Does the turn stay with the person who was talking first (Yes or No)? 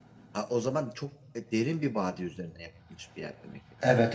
No